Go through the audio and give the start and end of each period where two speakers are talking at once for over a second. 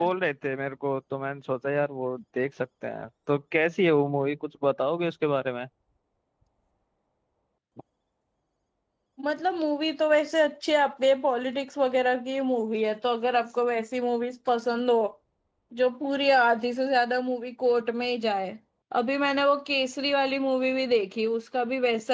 none

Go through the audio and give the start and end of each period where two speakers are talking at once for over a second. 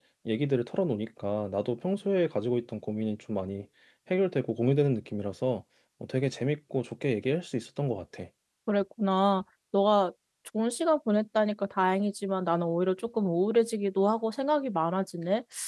none

